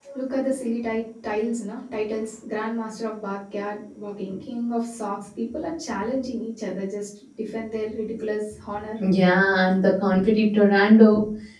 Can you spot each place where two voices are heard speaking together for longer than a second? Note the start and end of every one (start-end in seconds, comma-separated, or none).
none